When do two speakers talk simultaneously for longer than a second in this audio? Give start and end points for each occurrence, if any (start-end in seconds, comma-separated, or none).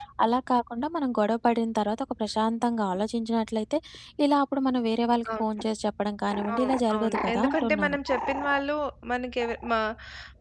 6.5-8.0